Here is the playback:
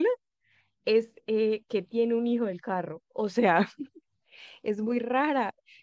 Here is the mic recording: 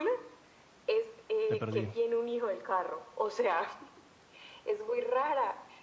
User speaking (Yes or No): Yes